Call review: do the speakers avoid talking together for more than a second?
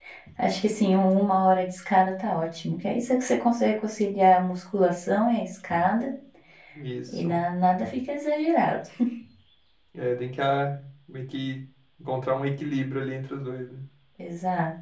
Yes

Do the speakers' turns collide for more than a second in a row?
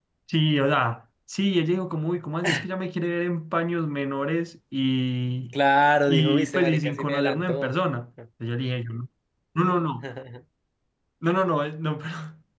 Yes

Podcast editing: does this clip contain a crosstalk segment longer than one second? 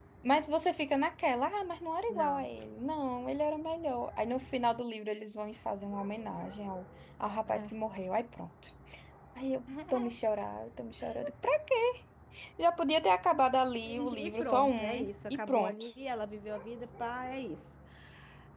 Yes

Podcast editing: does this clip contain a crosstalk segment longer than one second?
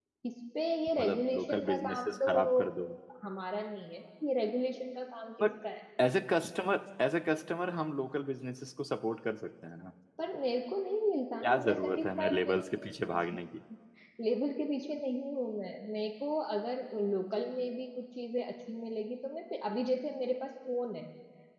Yes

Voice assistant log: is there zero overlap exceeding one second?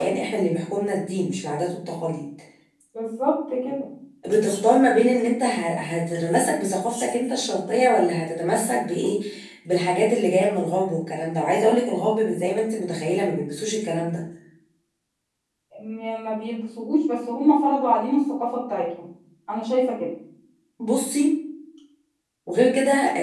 Yes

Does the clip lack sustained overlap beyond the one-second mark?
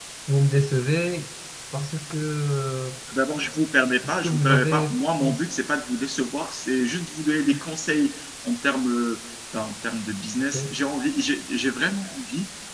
No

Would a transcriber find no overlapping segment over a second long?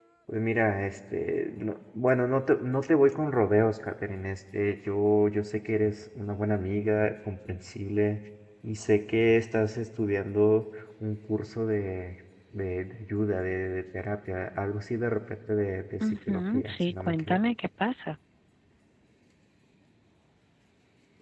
No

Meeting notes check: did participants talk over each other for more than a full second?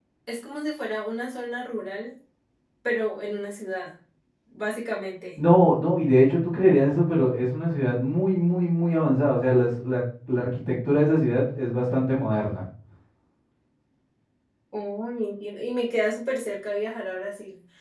No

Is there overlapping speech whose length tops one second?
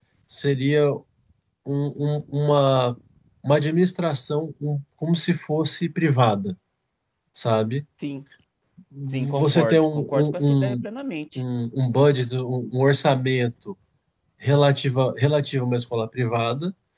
Yes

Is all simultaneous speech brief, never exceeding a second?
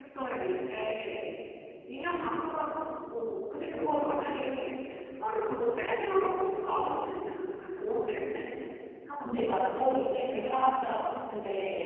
Yes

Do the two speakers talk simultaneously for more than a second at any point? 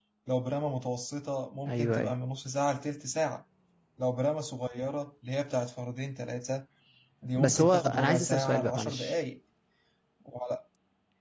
Yes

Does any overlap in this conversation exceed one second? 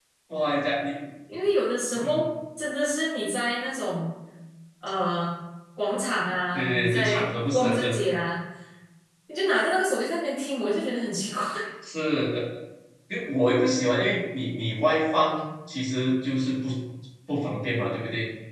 Yes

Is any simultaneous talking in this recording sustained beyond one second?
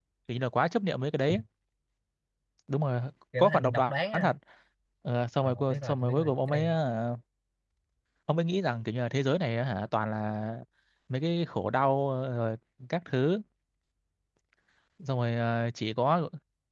Yes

